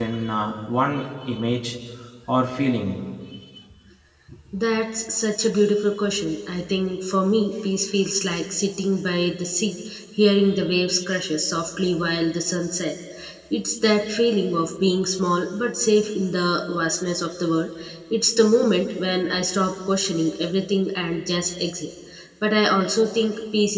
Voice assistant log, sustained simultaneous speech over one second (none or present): none